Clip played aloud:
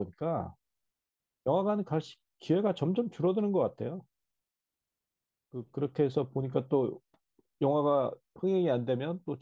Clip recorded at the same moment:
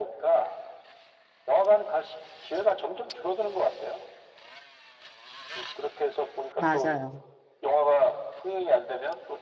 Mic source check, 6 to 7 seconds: both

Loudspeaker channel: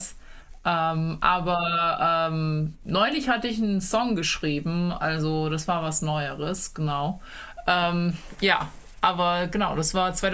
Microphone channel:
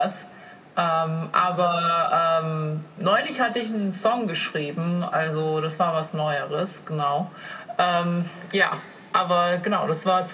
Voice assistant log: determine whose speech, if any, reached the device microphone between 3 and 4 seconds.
echo only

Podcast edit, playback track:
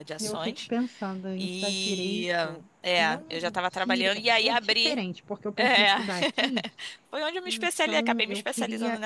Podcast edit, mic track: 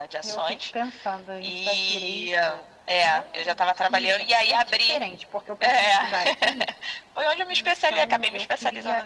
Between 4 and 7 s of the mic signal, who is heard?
echo only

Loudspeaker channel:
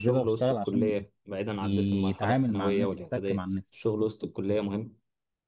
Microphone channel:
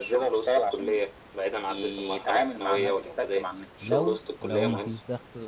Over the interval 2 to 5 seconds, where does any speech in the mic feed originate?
both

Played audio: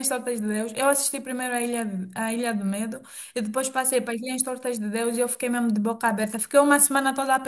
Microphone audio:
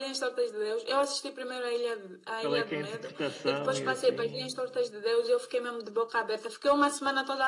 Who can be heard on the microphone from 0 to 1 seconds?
echo only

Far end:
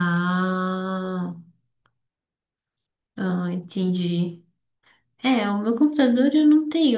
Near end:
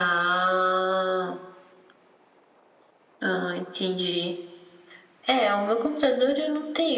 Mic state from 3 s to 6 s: echo only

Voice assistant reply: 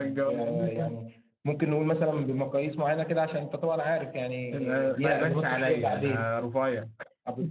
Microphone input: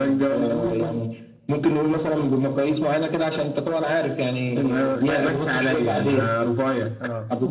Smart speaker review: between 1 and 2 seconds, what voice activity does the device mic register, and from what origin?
echo only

